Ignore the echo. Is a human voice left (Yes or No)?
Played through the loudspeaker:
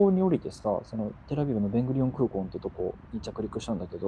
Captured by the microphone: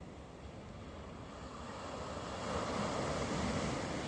No